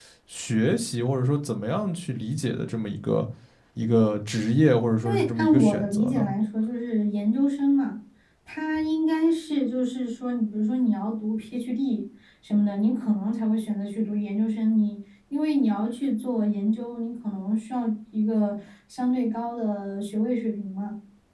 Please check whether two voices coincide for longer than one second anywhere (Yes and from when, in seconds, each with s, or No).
Yes, from 5.0 s